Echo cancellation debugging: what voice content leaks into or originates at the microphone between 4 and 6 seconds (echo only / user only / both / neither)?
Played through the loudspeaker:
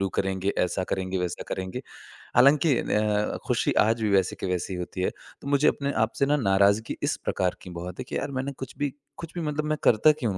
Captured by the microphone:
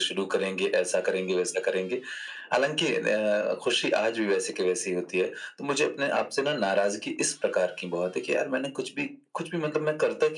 echo only